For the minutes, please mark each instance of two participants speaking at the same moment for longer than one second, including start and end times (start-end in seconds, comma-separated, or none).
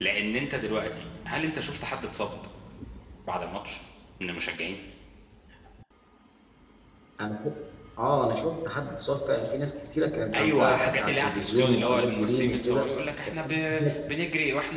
10.3-12.9